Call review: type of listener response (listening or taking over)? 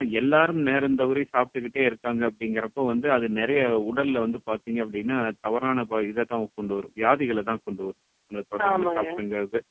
listening